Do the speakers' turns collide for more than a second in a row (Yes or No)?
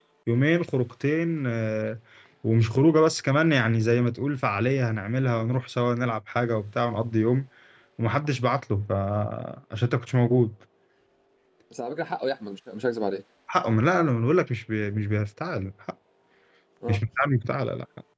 No